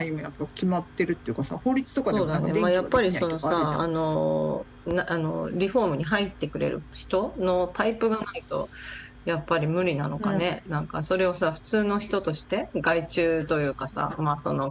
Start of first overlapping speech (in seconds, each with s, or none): 2.1 s